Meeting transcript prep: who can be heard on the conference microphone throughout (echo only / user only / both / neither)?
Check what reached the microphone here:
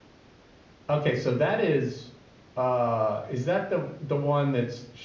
user only